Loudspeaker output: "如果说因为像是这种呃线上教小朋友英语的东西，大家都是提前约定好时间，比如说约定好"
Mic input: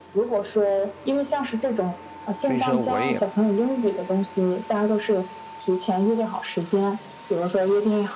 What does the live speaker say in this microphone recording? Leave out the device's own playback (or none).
所以说，我也